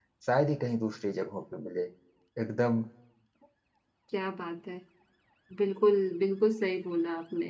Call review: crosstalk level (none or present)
none